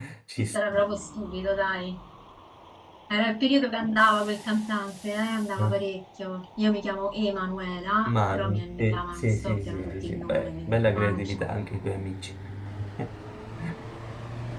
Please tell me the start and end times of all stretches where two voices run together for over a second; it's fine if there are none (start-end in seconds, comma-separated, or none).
8.1-11.3